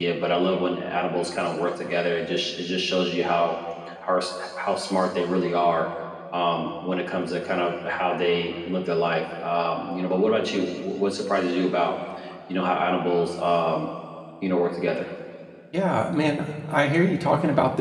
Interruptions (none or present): none